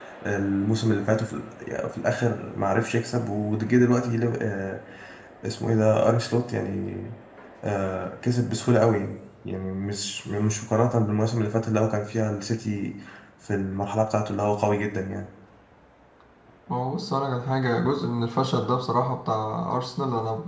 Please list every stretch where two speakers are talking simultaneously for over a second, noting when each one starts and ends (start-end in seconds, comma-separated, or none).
none